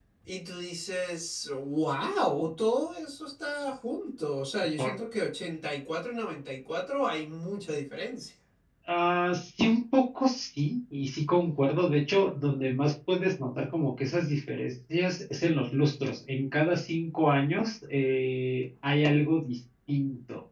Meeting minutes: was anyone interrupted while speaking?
No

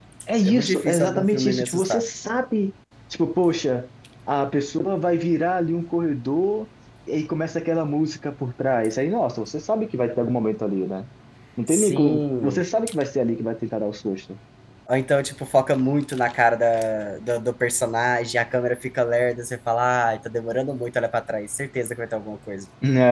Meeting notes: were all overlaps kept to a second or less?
No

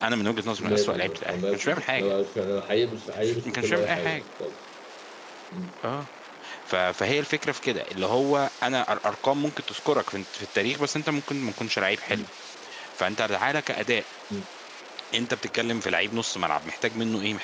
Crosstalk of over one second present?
Yes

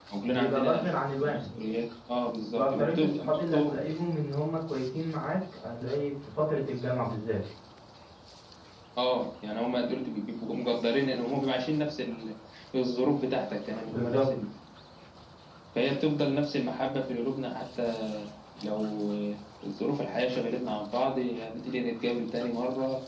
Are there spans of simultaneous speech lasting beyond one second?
Yes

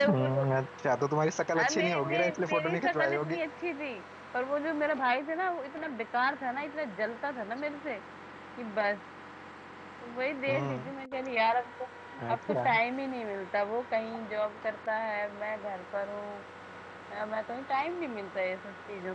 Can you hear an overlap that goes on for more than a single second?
Yes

